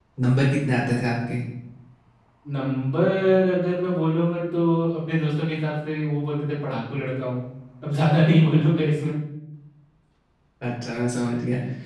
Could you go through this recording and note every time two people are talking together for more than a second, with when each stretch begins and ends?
none

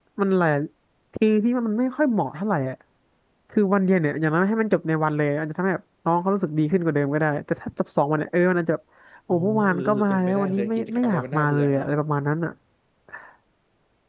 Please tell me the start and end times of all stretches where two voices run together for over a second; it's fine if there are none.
9.3-11.9

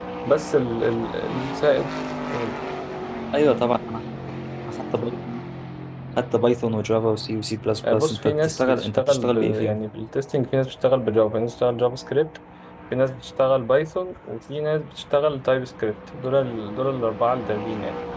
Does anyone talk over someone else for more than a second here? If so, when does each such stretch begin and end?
7.9-9.8

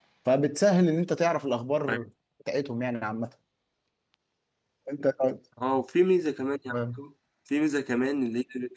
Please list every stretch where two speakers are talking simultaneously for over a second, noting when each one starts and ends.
none

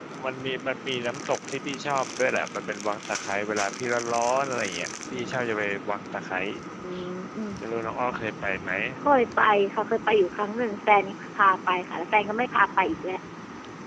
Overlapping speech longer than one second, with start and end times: none

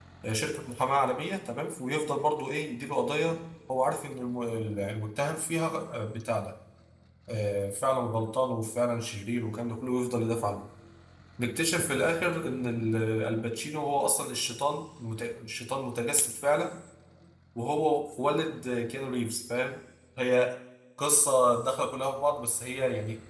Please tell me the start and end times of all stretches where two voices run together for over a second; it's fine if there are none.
none

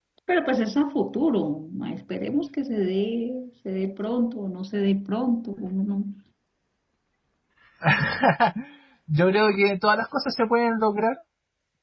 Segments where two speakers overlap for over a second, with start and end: none

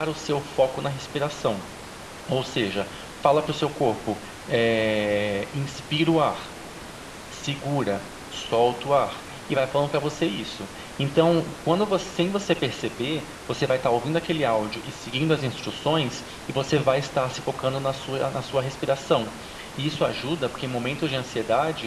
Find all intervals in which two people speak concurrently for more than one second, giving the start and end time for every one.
none

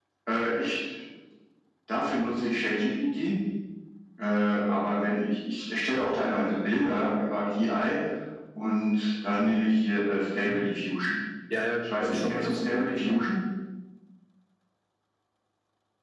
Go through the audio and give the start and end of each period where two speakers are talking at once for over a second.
11.8-13.3

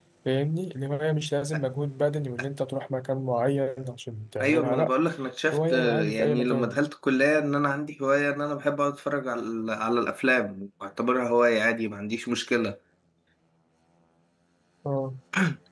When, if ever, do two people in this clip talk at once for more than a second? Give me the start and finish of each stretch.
5.5-6.8

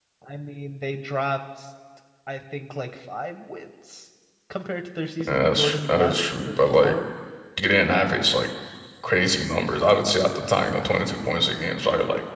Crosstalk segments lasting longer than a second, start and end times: 5.2-7.0

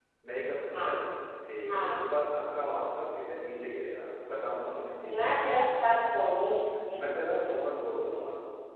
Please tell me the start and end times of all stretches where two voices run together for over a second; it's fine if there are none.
none

